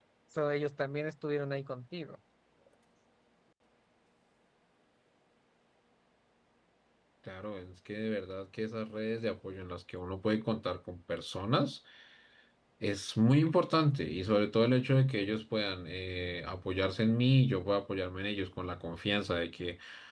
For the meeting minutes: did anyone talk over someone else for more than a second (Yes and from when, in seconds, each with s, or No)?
No